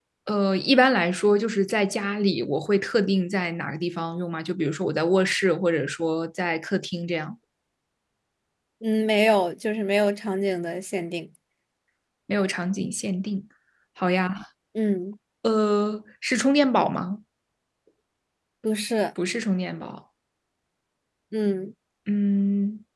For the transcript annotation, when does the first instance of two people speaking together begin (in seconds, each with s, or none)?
none